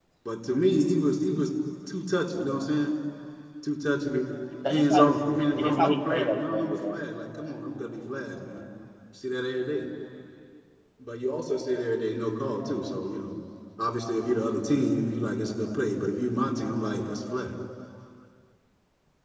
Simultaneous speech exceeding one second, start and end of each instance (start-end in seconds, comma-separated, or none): 5.6-7.0